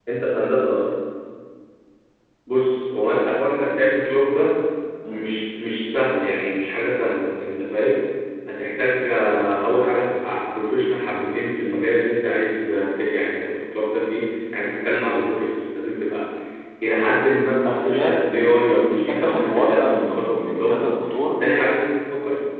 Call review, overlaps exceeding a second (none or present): present